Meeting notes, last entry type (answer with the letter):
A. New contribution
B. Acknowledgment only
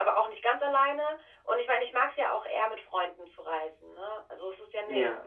A